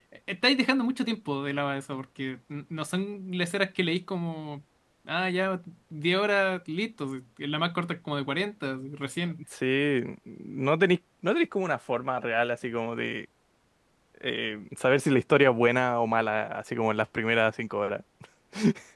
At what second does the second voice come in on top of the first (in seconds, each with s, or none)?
none